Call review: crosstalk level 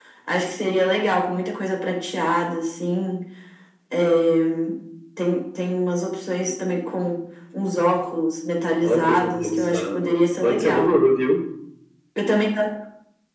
present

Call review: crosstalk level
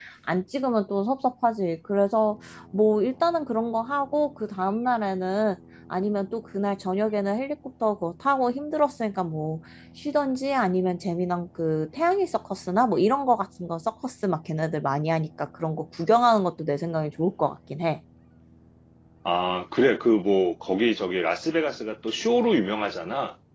none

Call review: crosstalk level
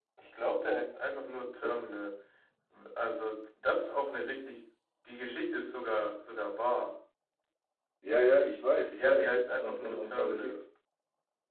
present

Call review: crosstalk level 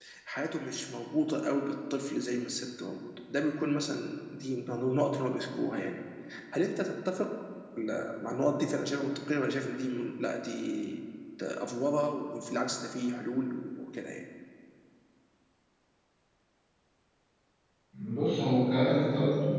none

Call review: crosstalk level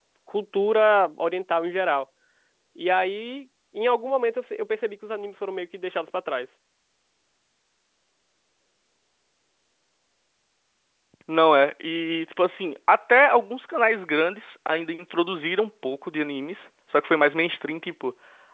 none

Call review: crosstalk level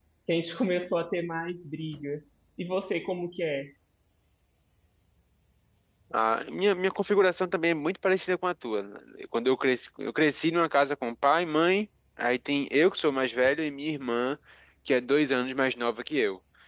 none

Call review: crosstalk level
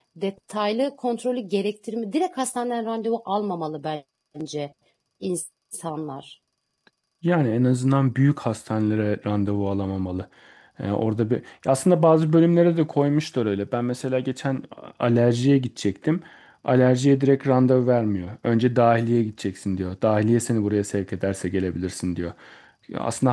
none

